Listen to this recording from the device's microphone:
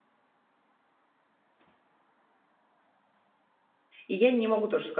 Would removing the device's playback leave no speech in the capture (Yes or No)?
No